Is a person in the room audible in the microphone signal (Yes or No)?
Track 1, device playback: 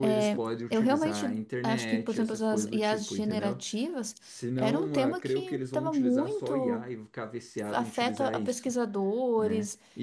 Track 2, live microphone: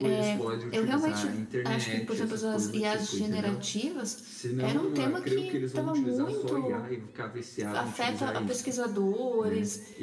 No